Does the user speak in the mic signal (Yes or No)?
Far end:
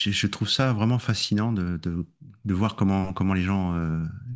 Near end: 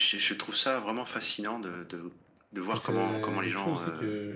Yes